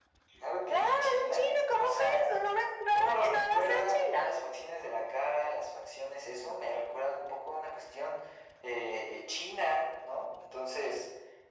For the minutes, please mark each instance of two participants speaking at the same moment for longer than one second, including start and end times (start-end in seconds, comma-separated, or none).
0.7-2.2, 2.9-4.3